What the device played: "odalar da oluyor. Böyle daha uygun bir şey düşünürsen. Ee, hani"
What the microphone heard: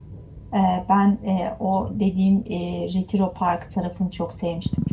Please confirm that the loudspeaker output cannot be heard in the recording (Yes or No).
Yes